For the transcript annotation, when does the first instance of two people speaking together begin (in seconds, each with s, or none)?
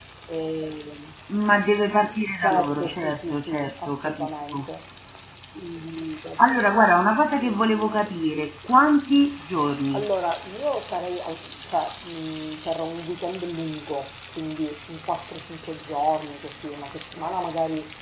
2.4 s